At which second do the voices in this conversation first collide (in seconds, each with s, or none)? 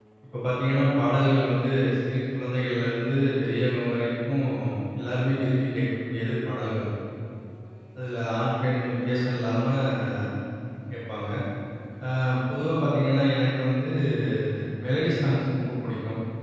none